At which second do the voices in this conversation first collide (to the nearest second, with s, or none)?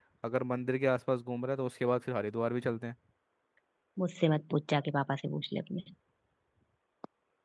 none